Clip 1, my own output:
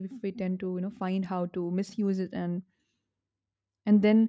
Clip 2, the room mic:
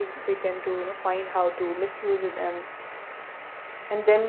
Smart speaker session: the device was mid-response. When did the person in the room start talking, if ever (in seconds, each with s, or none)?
none